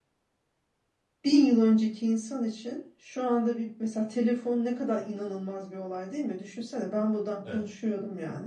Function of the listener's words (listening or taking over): listening